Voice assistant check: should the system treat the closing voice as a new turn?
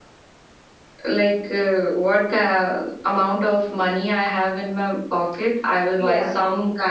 No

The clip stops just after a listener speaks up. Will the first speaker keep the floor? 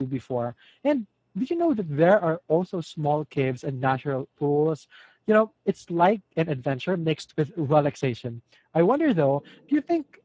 Yes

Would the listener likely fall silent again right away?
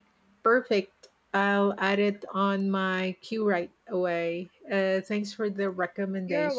No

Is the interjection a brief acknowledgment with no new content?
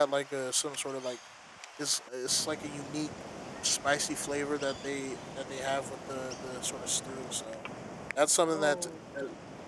Yes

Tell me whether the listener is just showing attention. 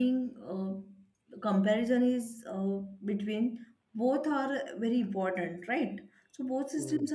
Yes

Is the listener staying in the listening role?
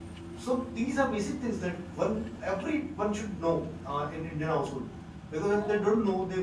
Yes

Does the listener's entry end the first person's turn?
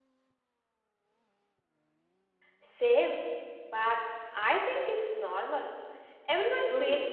Yes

